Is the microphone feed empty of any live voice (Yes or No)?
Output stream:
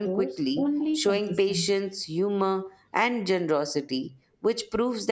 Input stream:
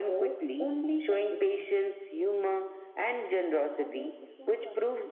No